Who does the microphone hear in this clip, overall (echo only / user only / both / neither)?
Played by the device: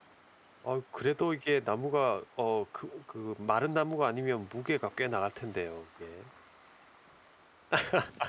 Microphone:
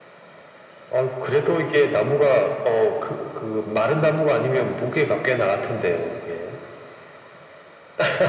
echo only